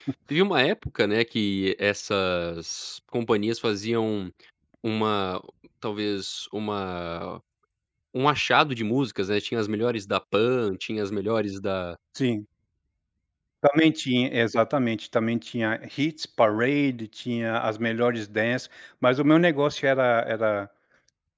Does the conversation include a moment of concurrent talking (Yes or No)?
No